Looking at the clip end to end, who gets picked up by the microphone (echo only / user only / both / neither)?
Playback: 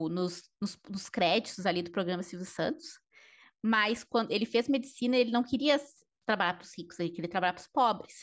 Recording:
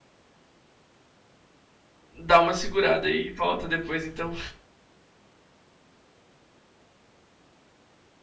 user only